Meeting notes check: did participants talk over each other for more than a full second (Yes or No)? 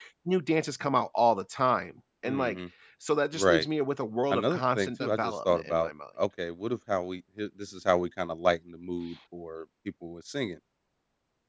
Yes